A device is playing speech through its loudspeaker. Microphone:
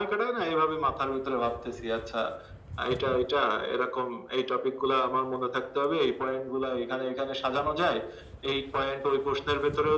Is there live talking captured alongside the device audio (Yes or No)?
No